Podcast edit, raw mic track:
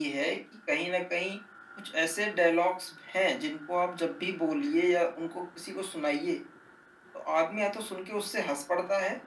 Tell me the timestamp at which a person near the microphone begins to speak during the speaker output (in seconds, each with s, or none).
none